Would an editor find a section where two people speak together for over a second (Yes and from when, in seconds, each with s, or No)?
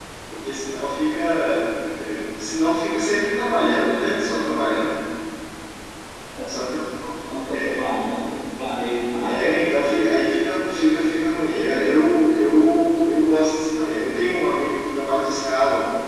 No